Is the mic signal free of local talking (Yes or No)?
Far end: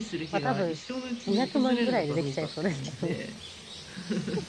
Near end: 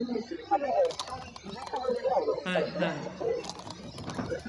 No